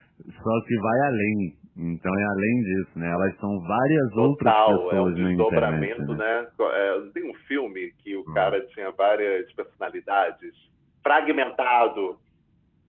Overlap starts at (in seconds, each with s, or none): 4.2 s